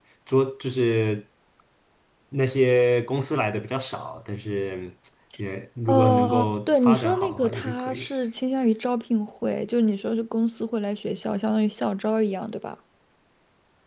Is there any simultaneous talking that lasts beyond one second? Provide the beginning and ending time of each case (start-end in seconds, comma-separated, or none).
5.9-8.1